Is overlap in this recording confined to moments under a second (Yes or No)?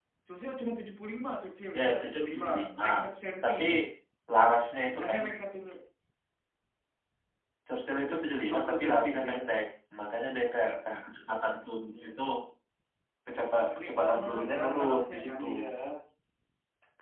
No